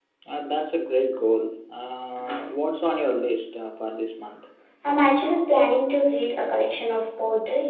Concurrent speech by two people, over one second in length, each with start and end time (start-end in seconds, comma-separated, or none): none